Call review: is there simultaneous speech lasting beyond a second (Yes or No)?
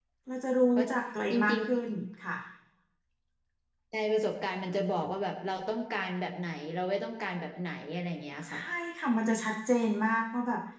No